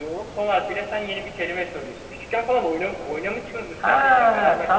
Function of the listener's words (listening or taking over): taking over